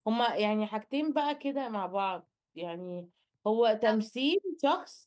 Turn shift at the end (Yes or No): No